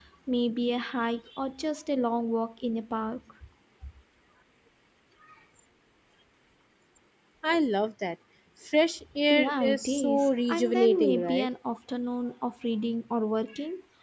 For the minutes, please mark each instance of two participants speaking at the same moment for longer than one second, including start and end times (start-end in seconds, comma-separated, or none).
9.3-11.5